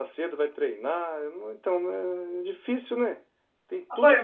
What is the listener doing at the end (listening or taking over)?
taking over